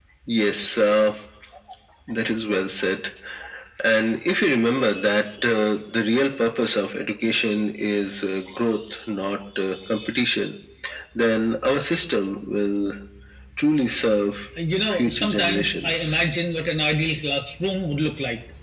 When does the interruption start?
14.9 s

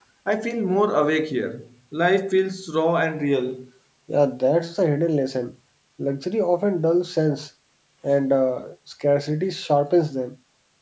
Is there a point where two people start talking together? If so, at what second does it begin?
none

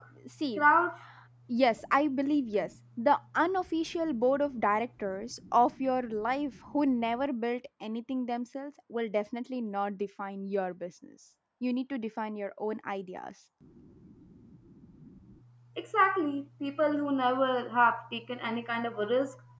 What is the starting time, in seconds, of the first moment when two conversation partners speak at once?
none

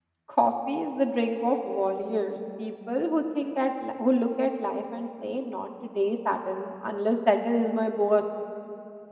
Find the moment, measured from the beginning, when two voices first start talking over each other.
none

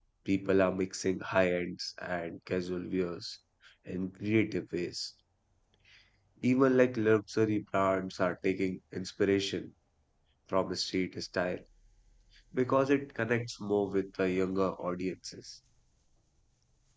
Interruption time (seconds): none

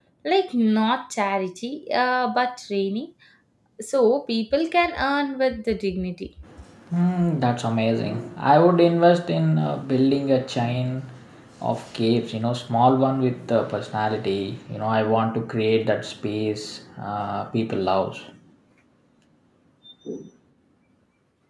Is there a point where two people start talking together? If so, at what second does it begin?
none

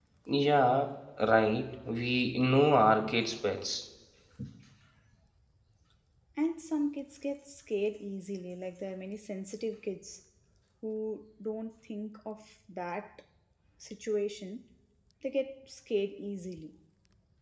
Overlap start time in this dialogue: none

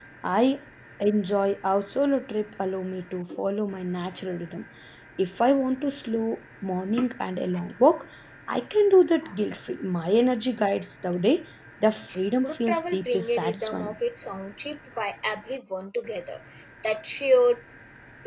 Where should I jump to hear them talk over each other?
12.4 s

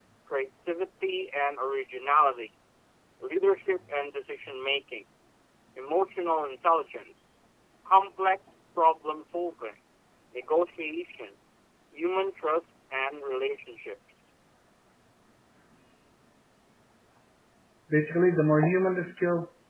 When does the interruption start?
none

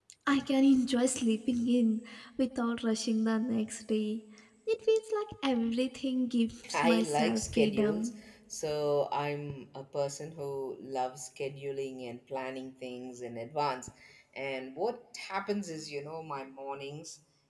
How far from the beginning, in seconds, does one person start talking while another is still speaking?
6.6 s

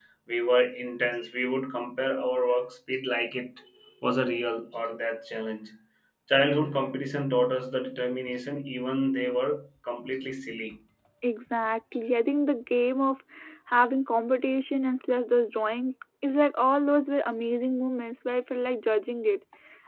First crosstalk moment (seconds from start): none

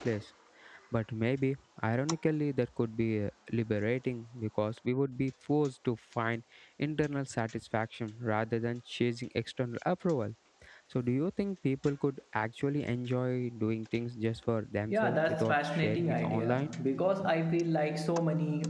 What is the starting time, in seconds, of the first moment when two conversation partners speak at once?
14.9 s

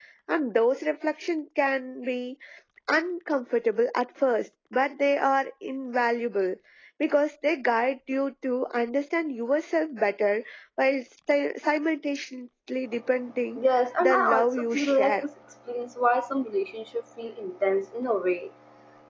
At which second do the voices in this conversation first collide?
14.0 s

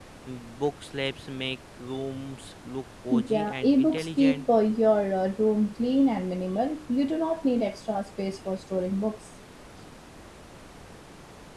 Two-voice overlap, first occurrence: 3.1 s

